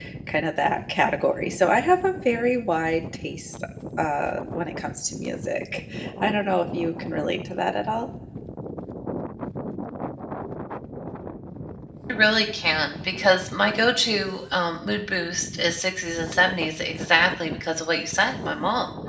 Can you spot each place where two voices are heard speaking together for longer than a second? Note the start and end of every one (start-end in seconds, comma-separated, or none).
none